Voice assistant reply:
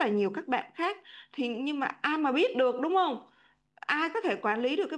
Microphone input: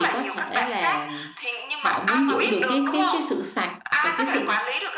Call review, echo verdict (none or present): present